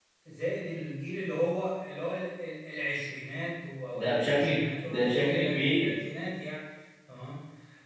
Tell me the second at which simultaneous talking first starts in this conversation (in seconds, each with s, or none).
3.9 s